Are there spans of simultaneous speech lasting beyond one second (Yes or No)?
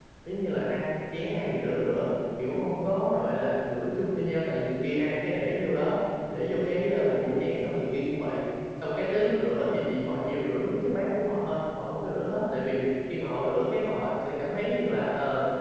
No